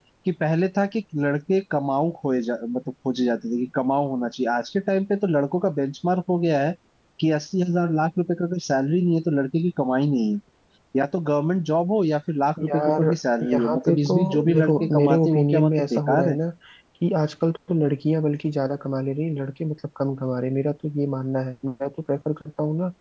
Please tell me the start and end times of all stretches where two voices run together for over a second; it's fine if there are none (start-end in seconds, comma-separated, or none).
13.5-16.4